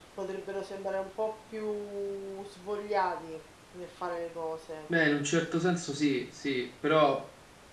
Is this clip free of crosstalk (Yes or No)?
Yes